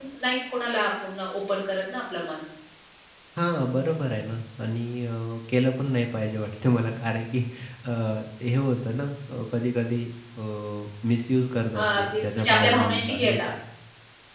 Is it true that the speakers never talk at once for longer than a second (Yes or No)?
No